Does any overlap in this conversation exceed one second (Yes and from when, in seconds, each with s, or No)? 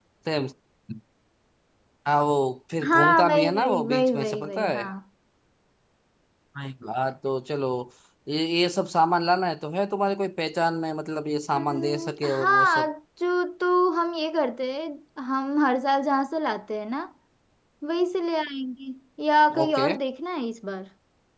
Yes, from 2.9 s